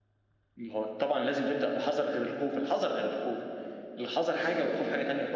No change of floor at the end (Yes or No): No